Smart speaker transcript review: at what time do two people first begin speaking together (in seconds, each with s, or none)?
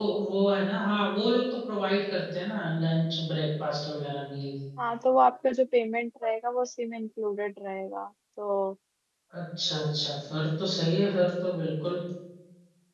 none